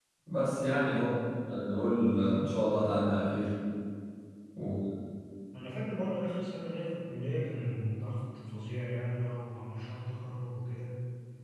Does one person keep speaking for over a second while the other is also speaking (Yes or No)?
No